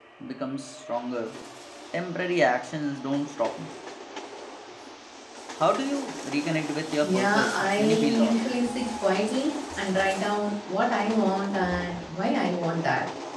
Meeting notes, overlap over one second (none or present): present